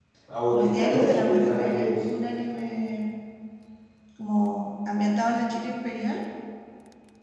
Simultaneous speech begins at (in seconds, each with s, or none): 0.5 s